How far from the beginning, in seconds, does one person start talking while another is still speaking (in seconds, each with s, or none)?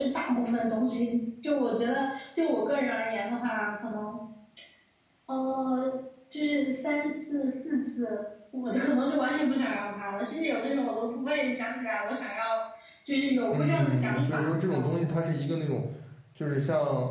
13.5 s